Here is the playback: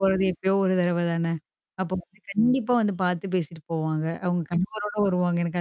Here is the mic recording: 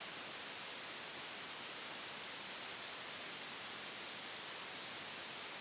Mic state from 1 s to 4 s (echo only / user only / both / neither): neither